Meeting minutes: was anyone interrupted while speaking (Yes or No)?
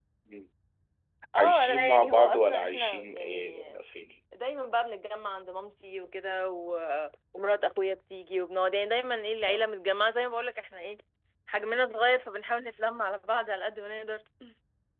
Yes